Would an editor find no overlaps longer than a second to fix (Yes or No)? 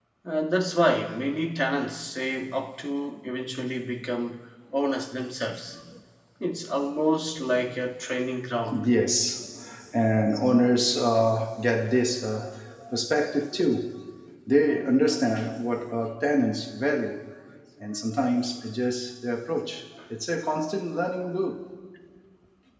Yes